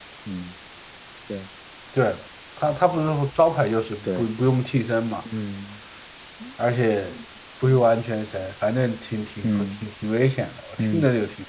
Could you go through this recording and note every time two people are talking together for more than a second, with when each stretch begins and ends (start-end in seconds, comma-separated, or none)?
none